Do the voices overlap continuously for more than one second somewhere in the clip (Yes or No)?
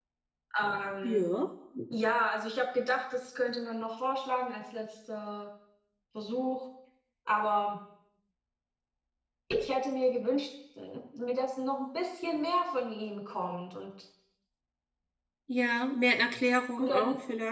No